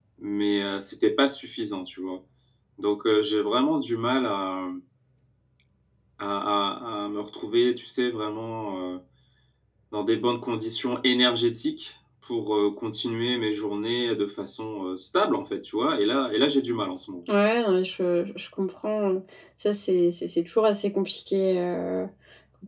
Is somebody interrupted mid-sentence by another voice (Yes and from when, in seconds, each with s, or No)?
No